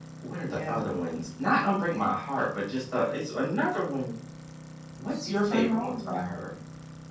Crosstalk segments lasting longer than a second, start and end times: 5.1-6.3

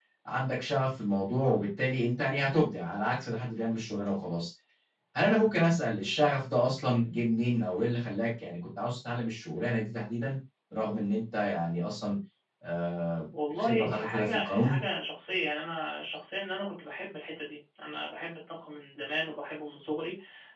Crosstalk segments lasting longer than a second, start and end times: 13.5-14.8

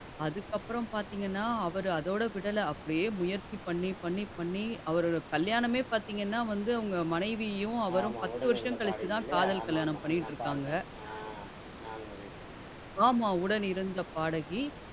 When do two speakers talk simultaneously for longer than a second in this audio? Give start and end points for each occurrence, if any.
8.0-10.7

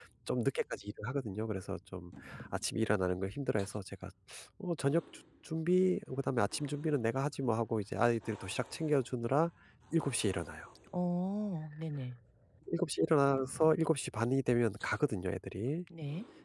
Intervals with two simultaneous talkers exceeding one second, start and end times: none

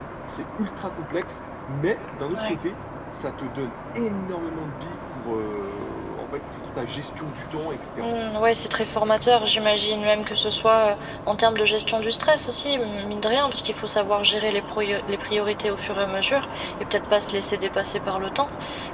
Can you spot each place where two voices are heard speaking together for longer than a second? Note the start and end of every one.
none

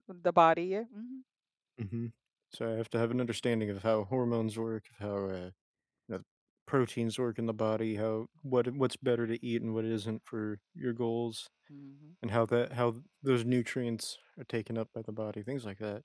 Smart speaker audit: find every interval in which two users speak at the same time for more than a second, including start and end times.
none

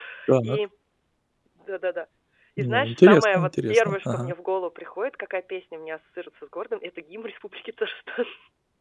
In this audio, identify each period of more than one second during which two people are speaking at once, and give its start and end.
2.6-4.3

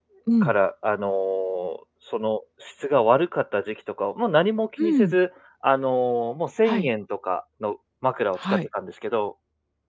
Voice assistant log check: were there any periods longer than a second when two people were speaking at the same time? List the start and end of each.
none

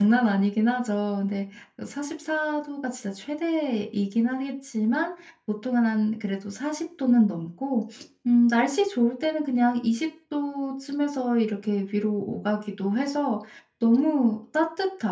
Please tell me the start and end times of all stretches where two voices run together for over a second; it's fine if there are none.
none

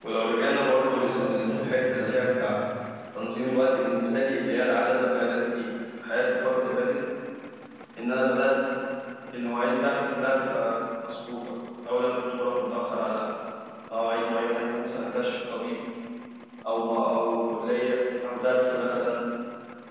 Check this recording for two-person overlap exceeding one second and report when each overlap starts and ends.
1.0-2.5

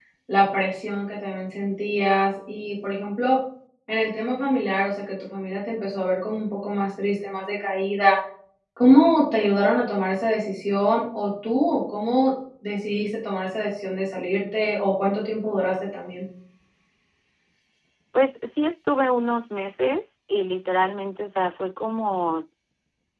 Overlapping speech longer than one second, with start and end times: none

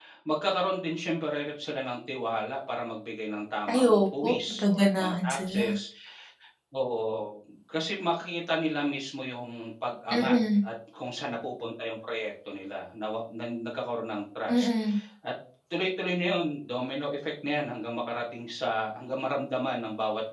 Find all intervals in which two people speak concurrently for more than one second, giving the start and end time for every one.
3.7-5.7

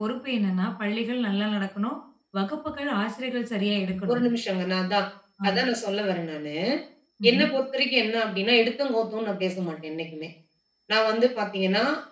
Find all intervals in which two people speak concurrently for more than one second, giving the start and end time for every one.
none

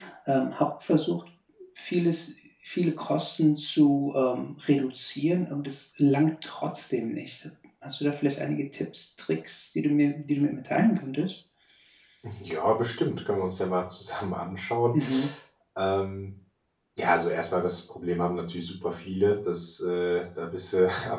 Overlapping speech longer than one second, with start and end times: none

